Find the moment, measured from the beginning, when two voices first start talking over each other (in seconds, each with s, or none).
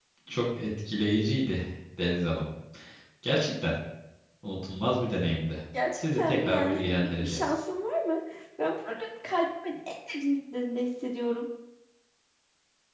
6.0 s